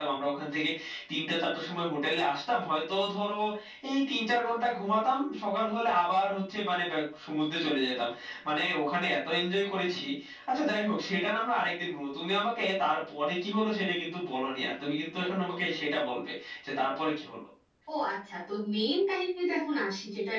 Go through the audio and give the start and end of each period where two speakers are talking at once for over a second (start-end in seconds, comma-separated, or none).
none